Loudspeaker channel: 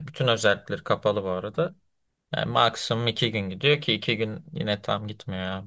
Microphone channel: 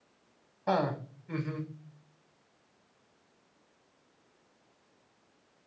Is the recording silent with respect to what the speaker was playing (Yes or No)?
Yes